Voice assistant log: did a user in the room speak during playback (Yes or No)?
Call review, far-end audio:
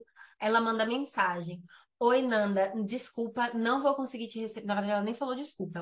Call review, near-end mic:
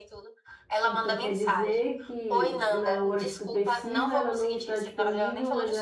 Yes